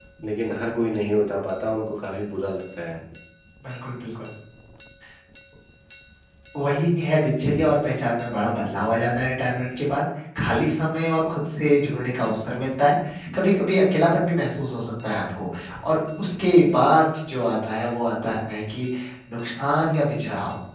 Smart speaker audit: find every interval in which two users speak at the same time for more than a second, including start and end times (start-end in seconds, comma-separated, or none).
none